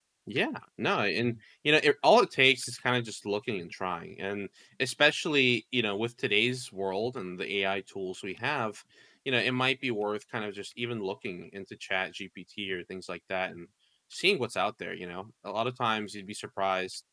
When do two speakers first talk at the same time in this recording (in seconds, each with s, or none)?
none